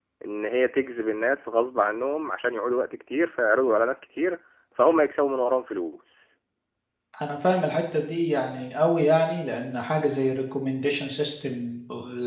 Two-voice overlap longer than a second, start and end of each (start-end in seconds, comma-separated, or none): none